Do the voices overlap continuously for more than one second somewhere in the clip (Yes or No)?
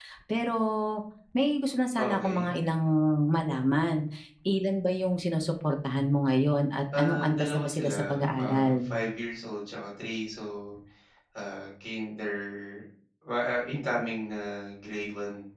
Yes